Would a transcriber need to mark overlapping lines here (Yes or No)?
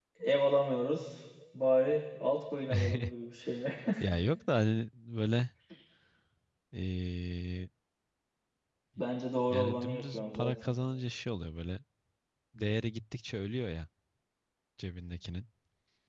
Yes